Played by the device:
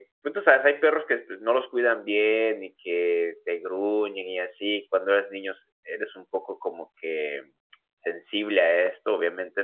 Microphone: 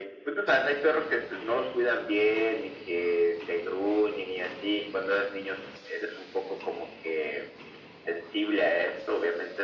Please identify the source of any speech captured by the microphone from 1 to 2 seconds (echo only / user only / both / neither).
echo only